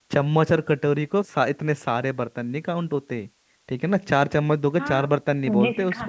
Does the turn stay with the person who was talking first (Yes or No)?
No